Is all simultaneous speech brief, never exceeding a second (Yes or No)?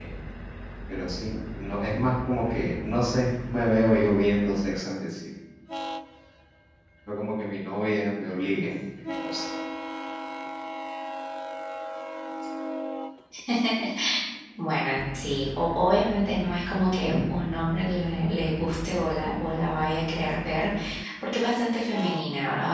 Yes